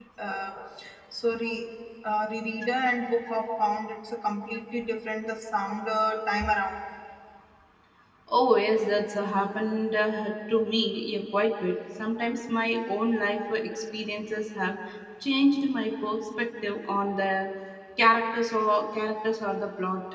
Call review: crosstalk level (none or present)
none